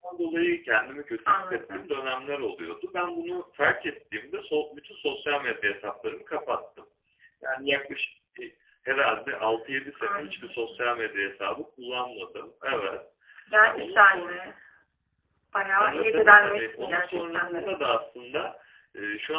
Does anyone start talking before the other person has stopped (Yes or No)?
Yes